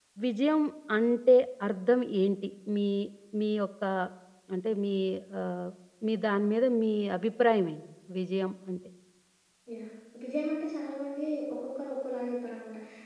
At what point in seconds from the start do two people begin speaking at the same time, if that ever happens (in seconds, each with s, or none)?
none